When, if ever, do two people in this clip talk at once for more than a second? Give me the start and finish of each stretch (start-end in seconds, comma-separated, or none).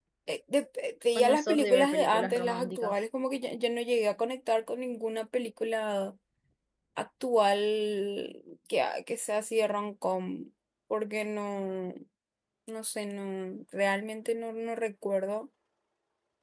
1.2-2.9